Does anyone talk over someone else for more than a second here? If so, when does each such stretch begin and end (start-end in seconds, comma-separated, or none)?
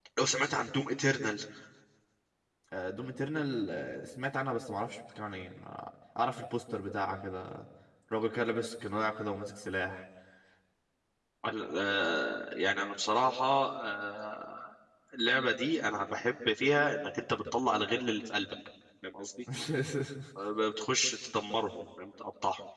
none